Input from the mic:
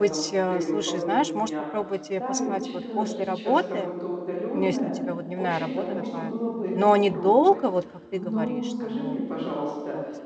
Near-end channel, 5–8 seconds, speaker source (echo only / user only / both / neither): both